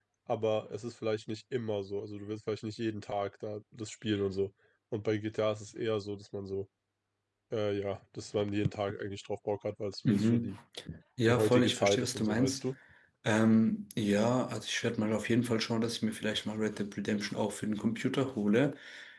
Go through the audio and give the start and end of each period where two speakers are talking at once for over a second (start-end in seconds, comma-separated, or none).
11.2-12.6